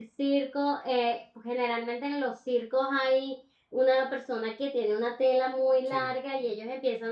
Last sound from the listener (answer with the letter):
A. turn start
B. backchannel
B